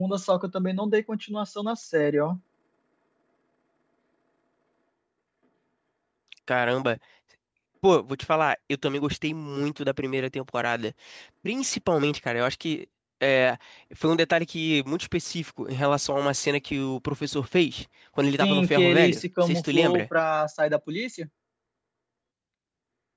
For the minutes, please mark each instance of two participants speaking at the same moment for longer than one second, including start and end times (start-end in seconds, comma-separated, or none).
18.4-20.0